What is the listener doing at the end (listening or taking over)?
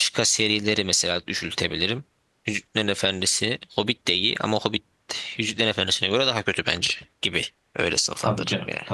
taking over